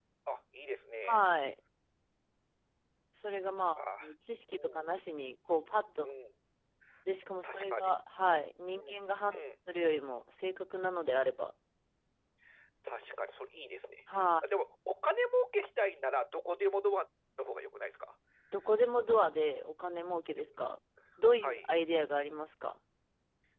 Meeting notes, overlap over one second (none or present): none